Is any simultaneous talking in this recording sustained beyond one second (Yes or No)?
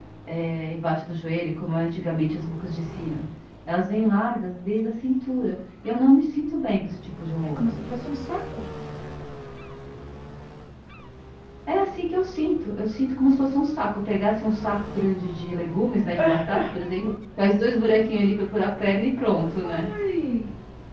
No